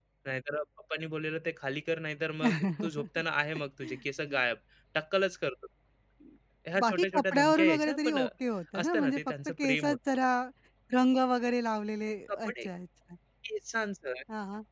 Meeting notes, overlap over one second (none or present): present